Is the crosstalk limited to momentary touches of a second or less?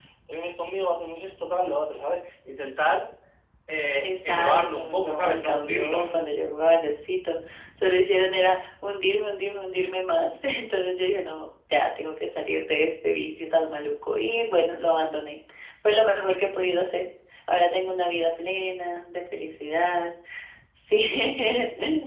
No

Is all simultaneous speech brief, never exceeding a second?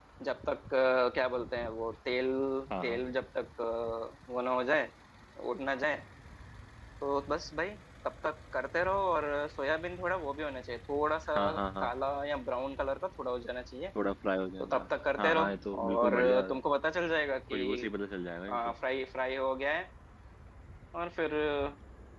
No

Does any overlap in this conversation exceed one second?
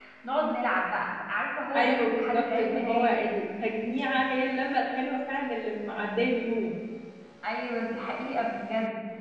Yes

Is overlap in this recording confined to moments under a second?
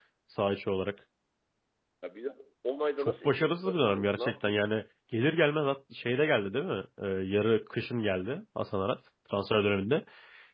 No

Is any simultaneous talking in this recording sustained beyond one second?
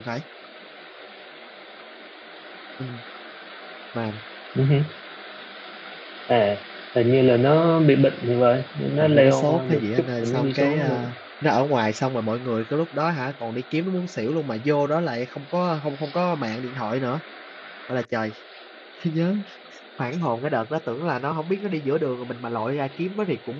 Yes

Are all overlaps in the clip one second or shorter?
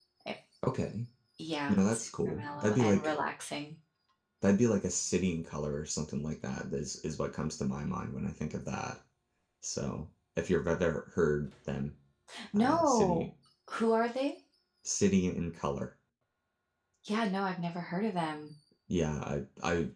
No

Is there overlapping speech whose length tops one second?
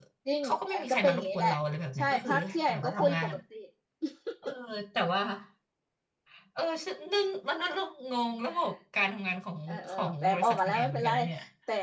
Yes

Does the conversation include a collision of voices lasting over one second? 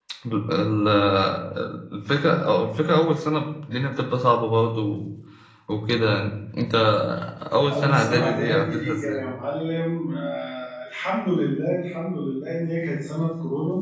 Yes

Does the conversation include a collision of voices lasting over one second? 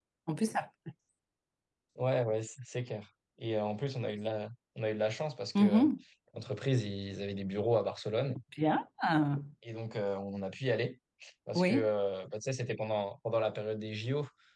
No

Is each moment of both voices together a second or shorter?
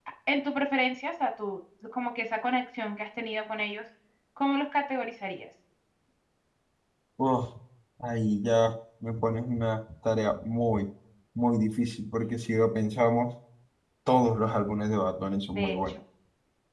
Yes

